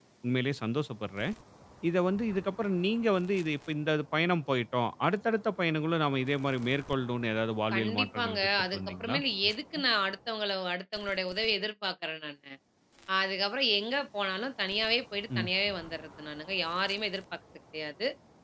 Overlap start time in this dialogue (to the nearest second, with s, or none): 8 s